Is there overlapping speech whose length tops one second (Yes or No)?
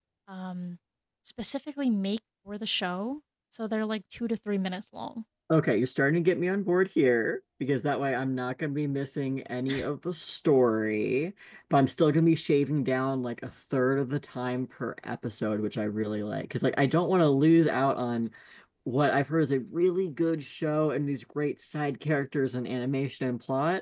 No